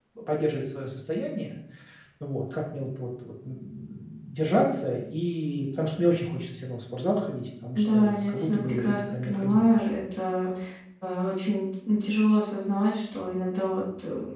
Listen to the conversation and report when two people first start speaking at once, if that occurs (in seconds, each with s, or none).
7.8 s